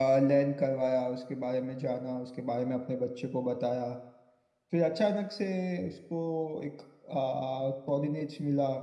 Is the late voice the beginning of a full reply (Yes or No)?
No